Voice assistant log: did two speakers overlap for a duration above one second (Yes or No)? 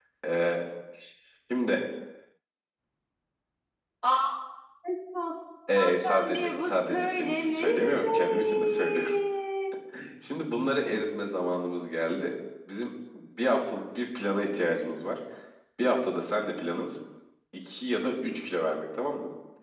Yes